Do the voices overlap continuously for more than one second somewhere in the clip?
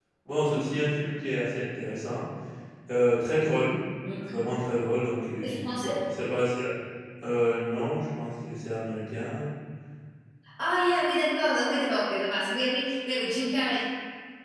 No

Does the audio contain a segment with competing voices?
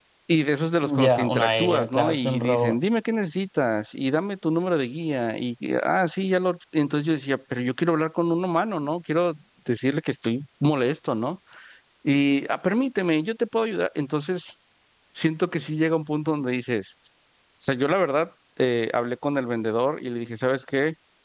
Yes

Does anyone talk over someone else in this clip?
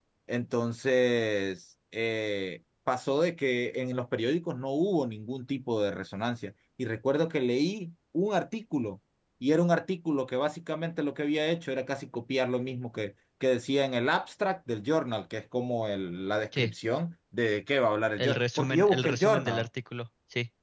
Yes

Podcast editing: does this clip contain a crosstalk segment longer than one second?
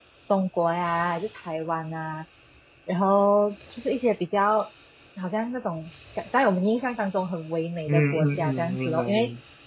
Yes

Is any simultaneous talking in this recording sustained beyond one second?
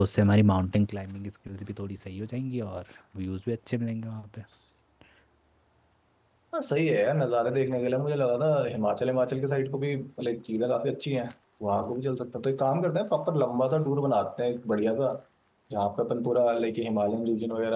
No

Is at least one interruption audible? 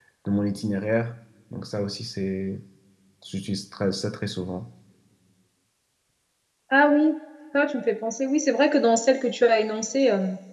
No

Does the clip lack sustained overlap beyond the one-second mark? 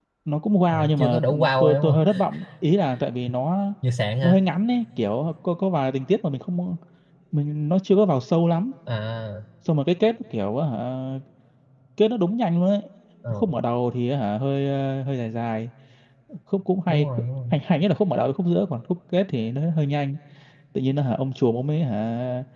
No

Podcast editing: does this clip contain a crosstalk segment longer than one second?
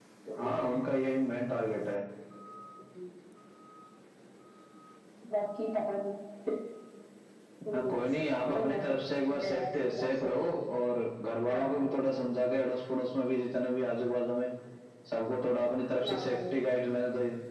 Yes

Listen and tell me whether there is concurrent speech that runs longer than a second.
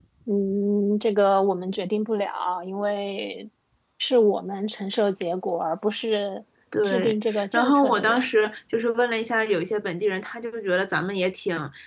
Yes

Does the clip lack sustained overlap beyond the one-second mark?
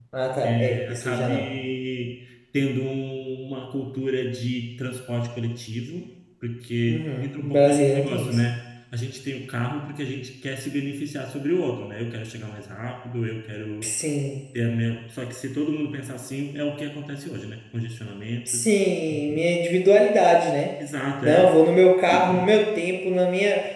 No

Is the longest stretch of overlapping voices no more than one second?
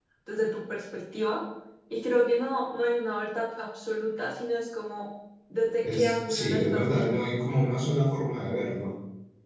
No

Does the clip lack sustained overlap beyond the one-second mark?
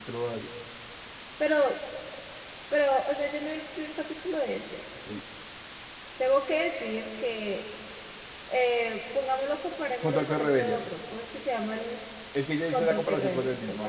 No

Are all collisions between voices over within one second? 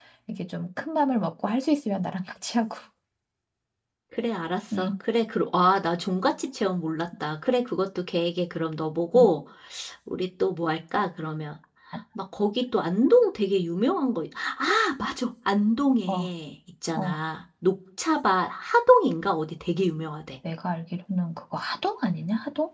Yes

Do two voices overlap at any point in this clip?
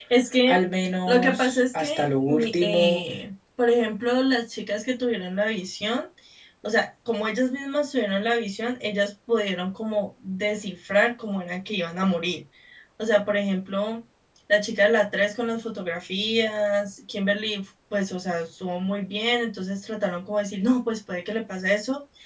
Yes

